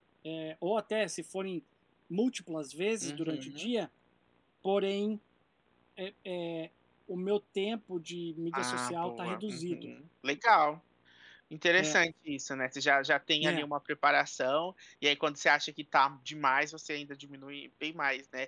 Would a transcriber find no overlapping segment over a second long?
No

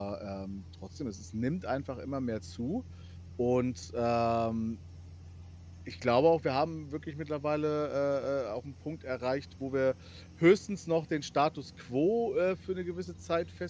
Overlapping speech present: No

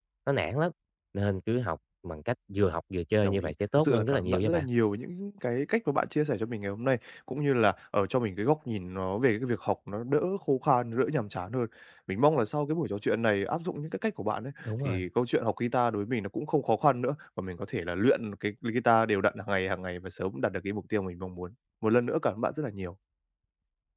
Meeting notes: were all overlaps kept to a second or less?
No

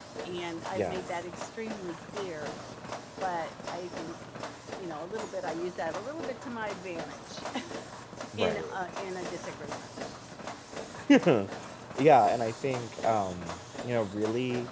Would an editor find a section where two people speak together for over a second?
No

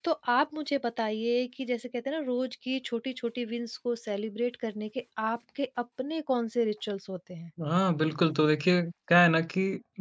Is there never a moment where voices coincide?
Yes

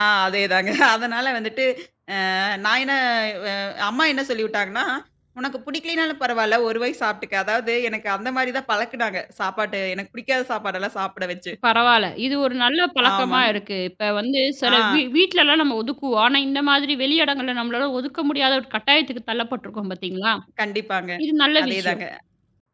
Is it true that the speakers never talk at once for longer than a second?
Yes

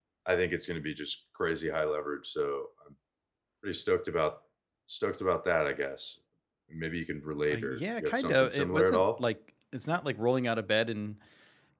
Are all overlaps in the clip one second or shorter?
No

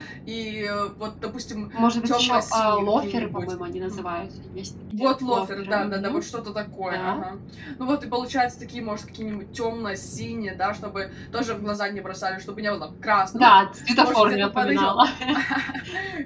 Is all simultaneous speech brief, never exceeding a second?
No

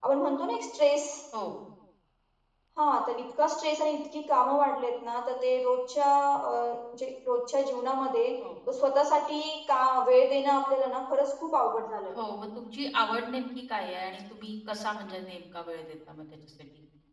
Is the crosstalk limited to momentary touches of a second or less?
Yes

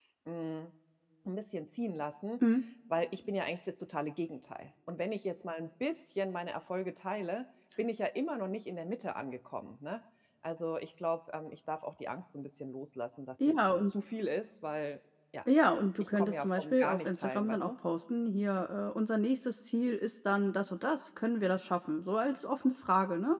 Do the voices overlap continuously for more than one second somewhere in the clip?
Yes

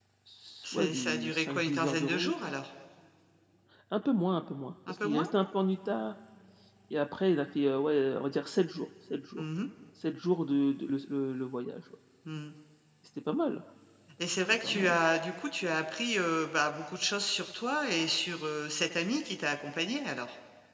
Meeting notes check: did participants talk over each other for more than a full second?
Yes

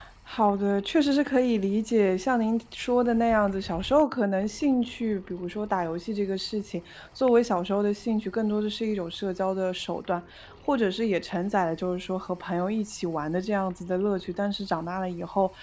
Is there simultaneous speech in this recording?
No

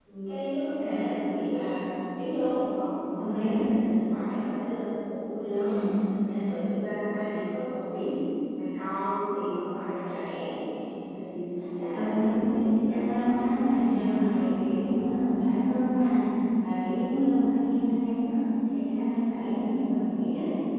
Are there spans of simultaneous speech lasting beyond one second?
Yes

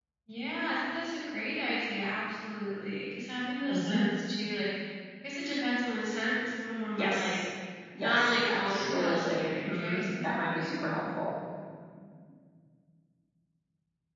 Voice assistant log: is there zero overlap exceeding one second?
No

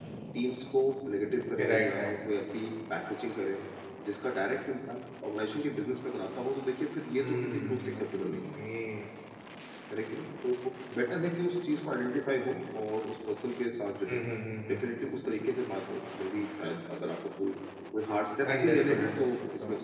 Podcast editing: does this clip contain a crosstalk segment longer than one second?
Yes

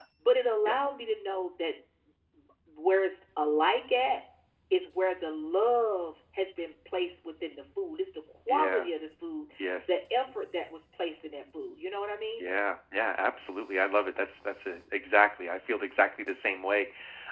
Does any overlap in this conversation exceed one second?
No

